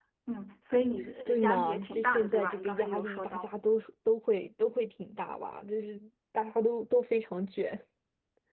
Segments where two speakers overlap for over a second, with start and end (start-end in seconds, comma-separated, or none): 1.3-3.5